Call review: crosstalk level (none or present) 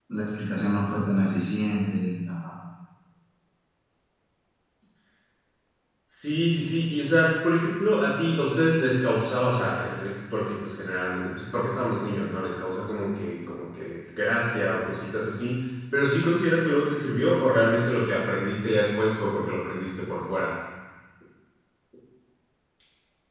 none